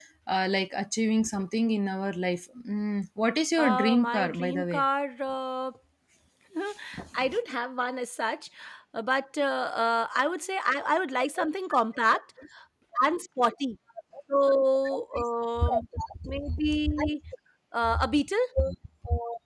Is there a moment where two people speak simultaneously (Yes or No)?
Yes